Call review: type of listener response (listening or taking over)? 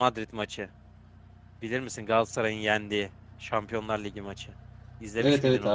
taking over